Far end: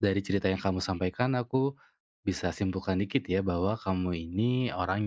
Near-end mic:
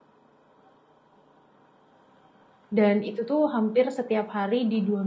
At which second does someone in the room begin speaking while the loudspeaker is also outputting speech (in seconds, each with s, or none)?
2.7 s